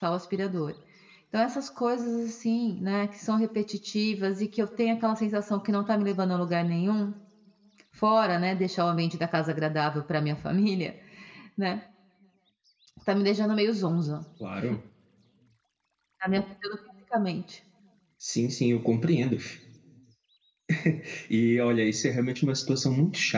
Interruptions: none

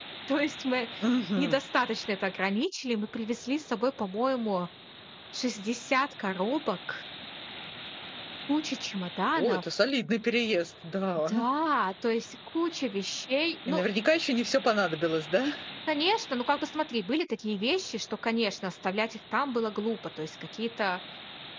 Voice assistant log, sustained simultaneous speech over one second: none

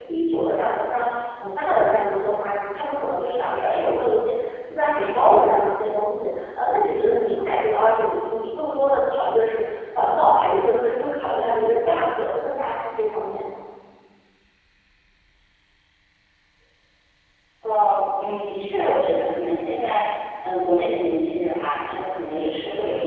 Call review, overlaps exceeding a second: none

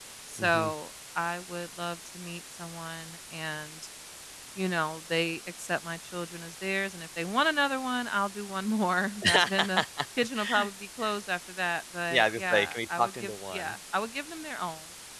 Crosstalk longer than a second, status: present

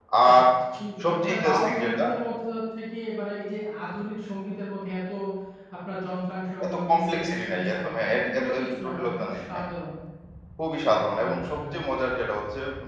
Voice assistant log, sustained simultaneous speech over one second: present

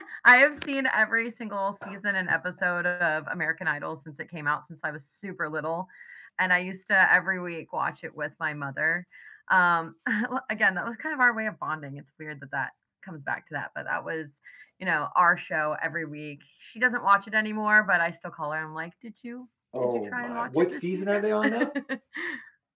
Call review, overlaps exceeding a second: present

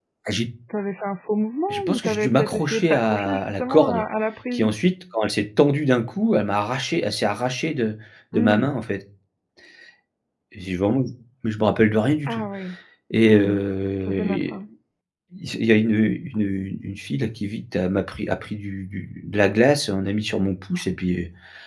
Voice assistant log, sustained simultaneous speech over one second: present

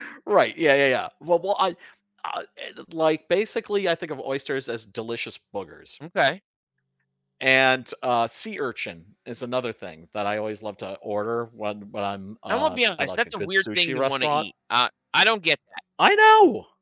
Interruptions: present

